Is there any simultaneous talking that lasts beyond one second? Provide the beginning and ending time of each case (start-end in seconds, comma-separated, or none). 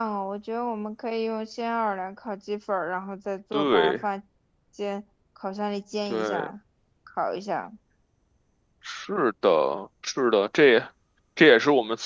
none